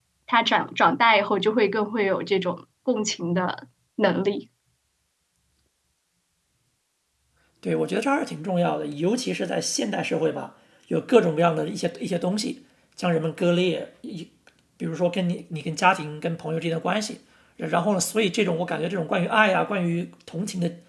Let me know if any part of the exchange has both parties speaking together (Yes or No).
No